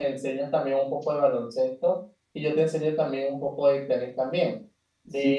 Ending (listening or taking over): taking over